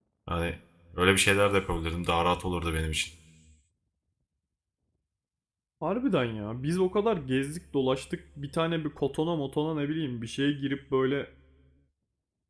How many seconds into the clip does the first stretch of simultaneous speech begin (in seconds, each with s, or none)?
none